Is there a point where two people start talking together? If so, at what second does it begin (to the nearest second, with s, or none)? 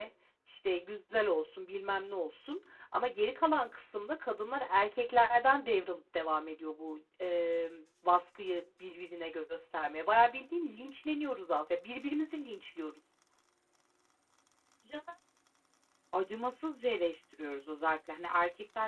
none